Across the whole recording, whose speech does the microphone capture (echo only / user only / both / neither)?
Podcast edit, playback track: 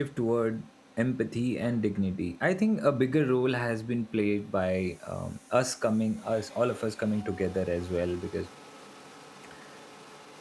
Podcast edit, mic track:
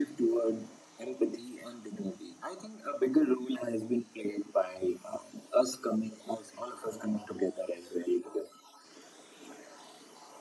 echo only